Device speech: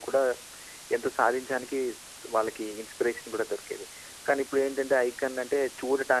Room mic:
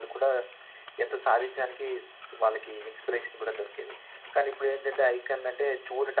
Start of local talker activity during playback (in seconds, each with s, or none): none